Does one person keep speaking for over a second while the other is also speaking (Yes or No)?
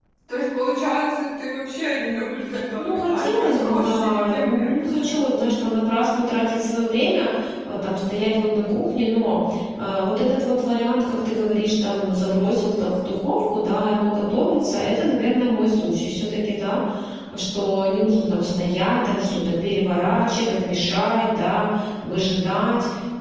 Yes